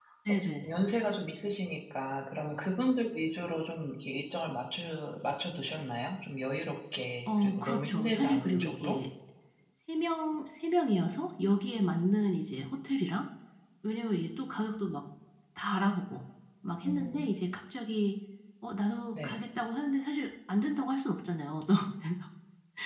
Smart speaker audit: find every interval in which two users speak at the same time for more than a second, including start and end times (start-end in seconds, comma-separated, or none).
7.3-9.0